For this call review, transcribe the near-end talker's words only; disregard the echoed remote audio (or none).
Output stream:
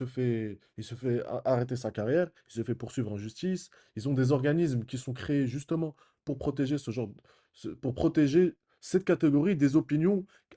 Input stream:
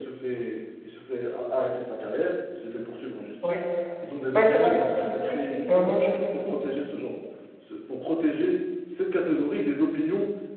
Ouais. Ben, c'est la même chose ici. C'est la même chose ici.